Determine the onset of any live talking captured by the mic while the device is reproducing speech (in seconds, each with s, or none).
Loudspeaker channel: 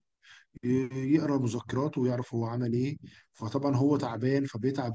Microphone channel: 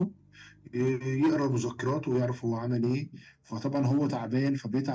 none